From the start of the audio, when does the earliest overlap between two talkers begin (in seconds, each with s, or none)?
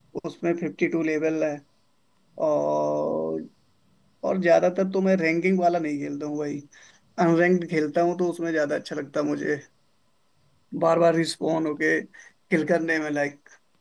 none